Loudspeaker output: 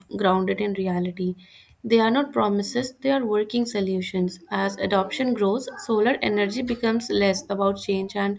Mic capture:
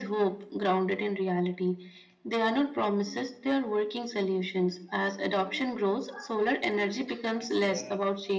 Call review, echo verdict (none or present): present